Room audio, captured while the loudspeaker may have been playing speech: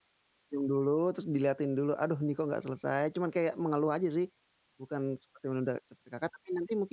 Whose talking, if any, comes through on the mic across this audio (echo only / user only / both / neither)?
user only